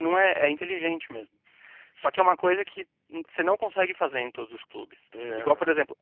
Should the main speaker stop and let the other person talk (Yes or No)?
No